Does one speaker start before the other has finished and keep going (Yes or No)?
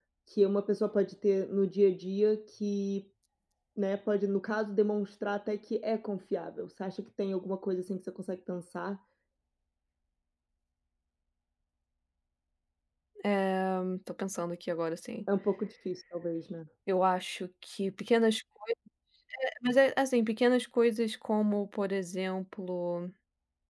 No